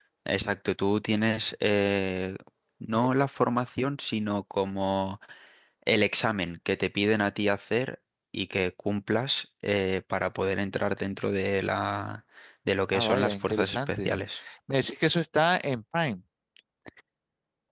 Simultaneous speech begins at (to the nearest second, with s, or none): 13 s